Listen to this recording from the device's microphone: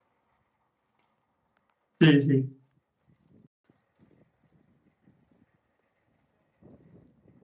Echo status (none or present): none